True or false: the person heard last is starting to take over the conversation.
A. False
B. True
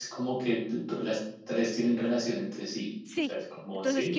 B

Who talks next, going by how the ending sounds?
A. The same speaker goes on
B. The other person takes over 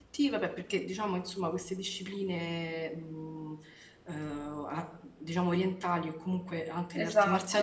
A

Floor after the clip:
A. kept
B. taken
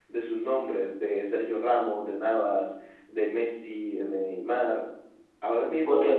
A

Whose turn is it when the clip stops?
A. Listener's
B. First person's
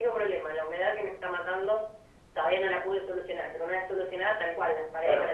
A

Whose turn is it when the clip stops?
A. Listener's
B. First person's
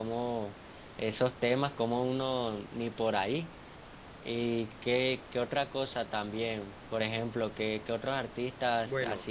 A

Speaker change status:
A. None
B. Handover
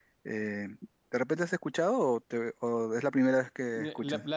B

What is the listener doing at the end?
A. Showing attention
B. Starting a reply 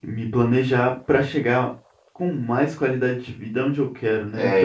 B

